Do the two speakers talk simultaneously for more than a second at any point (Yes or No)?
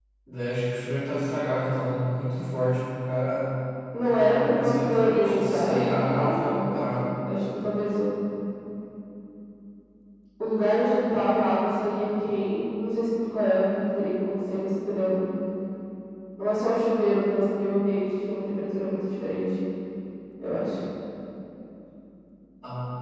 Yes